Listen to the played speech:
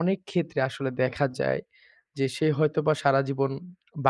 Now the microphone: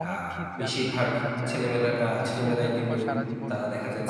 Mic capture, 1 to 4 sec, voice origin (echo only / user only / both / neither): both